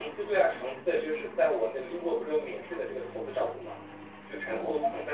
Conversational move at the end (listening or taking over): listening